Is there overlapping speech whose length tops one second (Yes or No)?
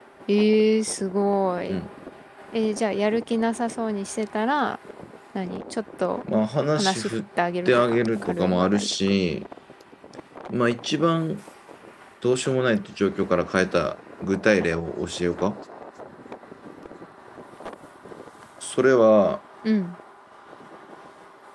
Yes